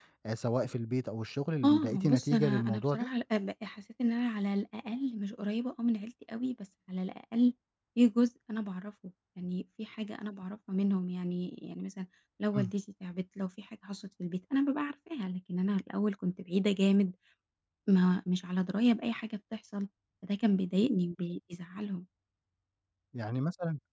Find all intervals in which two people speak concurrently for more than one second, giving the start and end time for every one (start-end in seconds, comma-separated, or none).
1.6-3.1